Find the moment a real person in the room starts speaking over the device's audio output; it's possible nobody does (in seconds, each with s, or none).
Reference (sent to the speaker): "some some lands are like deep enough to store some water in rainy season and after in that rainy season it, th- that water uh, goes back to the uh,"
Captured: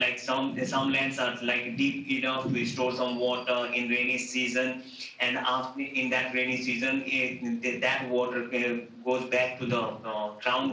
none